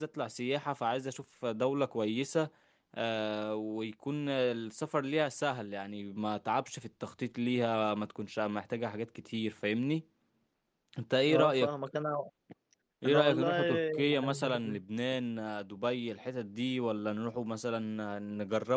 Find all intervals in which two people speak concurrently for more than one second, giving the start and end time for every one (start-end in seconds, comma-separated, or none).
13.0-14.8